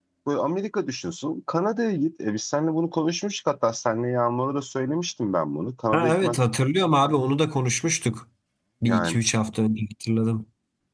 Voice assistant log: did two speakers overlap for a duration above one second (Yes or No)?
No